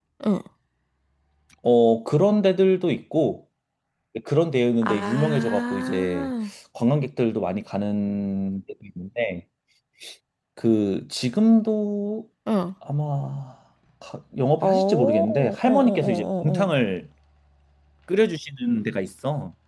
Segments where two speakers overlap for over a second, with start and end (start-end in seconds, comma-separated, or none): 4.8-6.3, 14.6-16.8